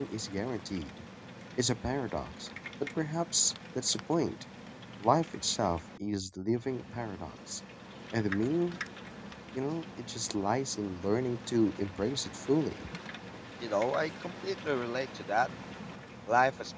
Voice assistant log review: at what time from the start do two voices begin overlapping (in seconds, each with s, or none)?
none